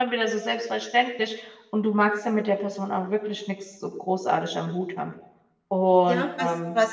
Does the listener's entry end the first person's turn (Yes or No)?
Yes